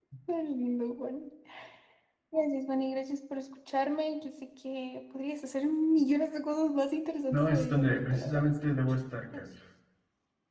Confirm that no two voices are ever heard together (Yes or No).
No